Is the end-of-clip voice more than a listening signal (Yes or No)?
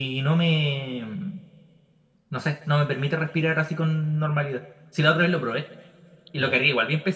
No